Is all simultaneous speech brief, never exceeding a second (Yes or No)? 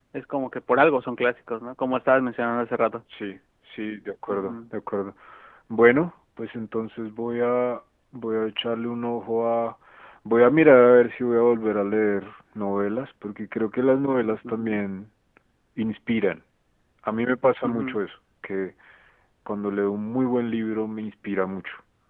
Yes